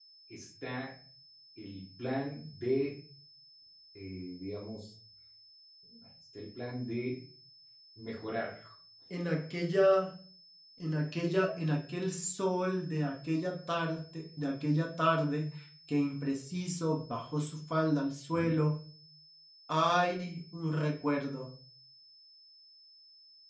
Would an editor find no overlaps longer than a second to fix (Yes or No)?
Yes